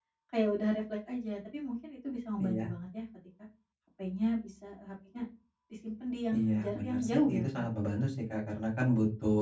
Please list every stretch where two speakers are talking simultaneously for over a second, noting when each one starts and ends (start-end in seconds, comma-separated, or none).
6.4-7.6